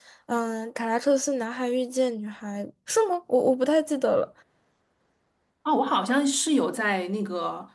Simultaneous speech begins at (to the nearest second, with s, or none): none